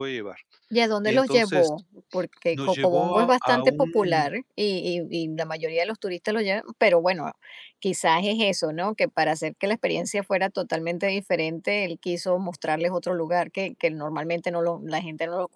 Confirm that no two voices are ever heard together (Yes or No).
No